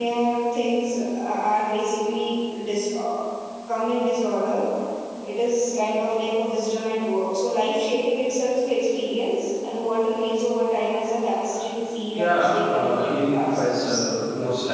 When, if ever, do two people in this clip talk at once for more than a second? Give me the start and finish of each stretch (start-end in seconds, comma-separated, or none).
12.1-14.0